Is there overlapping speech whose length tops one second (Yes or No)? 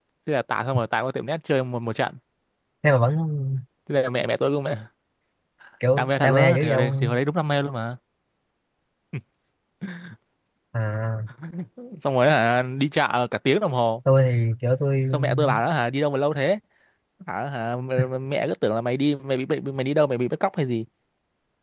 Yes